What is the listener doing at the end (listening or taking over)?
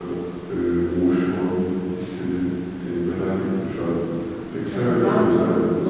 taking over